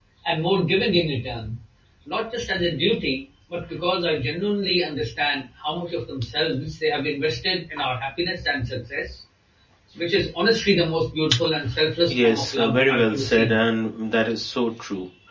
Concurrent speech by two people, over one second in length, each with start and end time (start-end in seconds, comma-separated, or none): 12.1-13.6